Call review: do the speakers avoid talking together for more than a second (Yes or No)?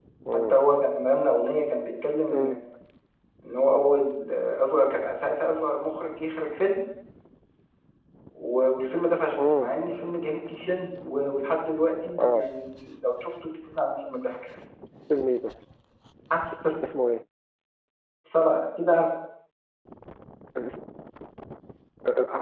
Yes